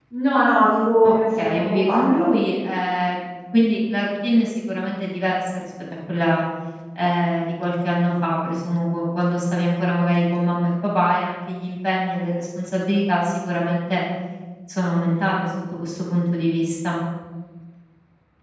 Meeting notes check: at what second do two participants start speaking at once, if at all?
1.0 s

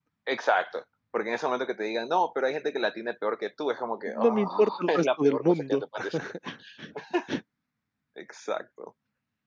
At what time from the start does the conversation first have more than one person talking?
4.1 s

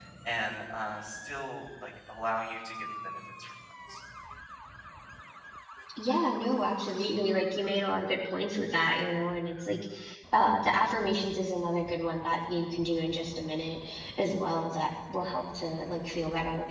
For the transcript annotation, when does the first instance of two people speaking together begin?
none

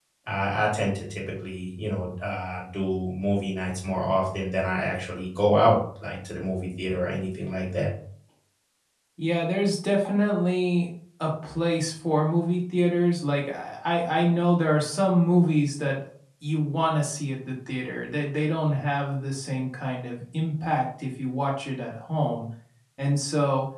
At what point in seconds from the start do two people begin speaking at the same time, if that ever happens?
none

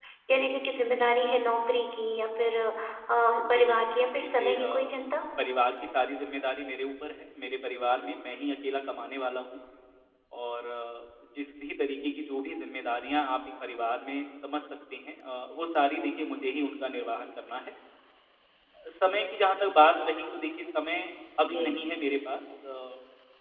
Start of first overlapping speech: 3.5 s

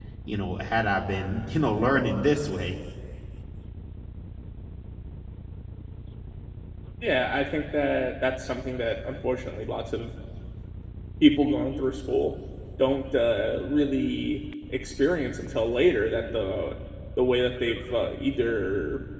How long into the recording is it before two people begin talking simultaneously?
none

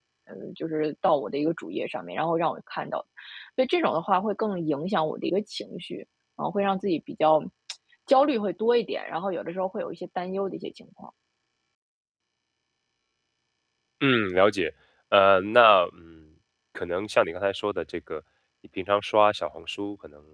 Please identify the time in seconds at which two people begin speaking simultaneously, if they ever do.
none

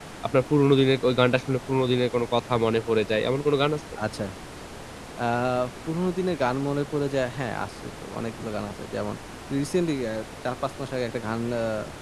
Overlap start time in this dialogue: none

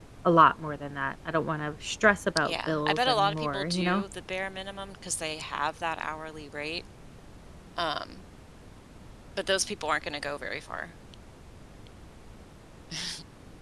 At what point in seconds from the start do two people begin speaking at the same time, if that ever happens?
2.4 s

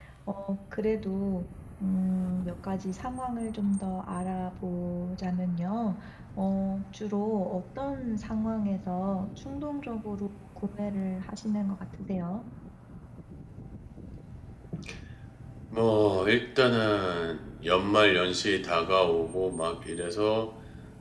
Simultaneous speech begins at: none

